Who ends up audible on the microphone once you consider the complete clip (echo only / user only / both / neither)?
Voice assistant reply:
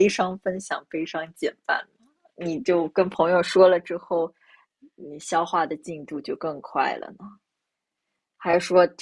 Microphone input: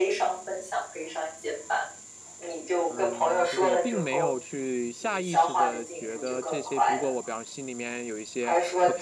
both